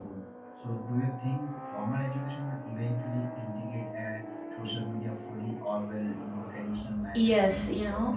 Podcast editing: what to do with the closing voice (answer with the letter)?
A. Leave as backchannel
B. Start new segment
B